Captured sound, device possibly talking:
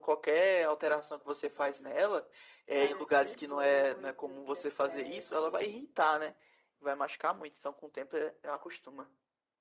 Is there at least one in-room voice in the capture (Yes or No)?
Yes